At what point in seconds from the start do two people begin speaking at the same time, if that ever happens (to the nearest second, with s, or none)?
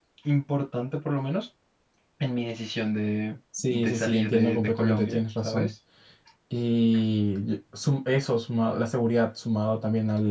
4 s